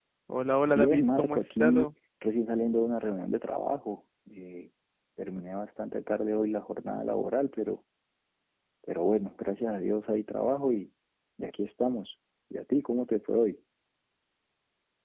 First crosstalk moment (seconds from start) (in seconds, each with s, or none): 0.7 s